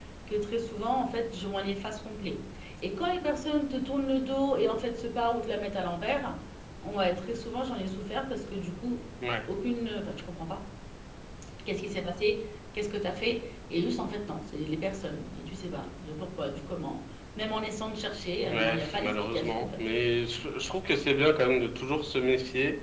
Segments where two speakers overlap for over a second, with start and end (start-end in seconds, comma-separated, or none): 18.4-19.8